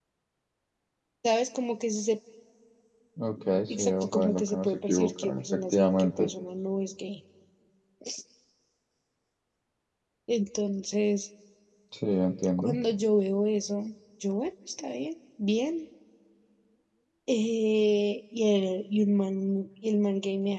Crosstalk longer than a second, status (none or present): present